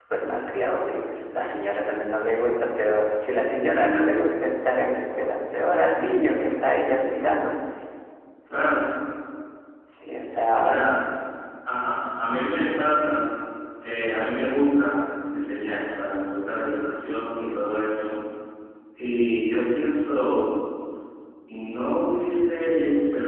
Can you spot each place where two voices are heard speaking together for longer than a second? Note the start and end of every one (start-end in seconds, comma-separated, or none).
none